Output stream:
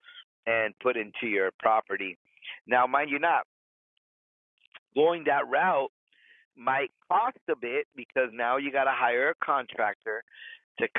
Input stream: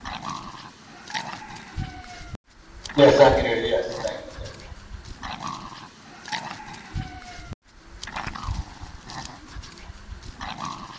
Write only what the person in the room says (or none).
Yes, I can hear you. Yes, thanks. Yeah.